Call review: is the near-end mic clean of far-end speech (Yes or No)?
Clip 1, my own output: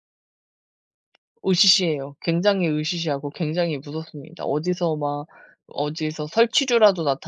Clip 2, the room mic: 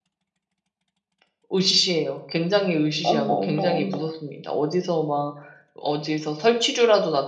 No